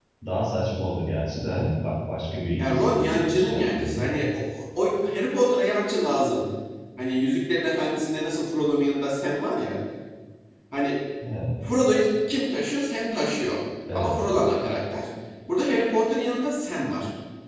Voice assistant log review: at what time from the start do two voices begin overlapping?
2.6 s

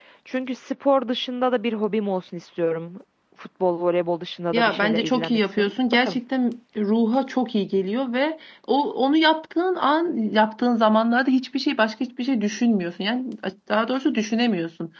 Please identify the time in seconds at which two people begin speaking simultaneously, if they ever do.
4.5 s

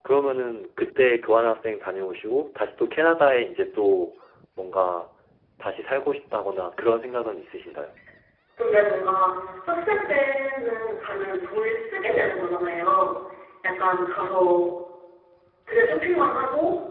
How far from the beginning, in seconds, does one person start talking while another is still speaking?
none

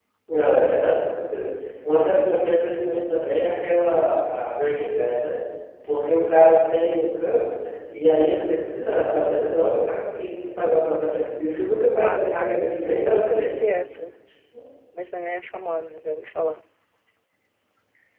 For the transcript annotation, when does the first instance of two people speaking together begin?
11.9 s

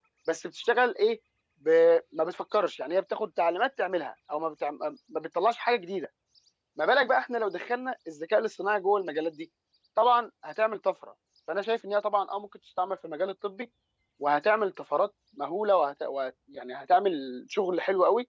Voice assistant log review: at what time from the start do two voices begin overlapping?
none

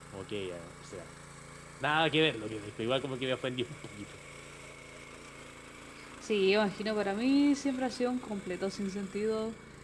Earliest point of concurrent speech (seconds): none

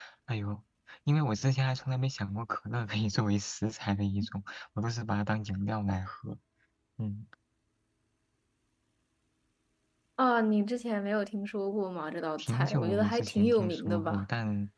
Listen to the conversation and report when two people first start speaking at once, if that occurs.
12.4 s

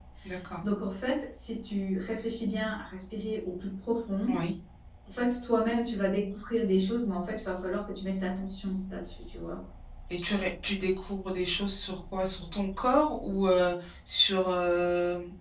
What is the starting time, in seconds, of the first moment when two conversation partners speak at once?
none

